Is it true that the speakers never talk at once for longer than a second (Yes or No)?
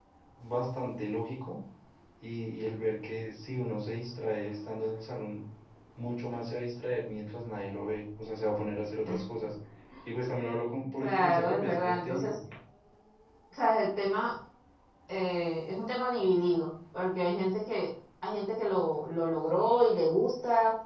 No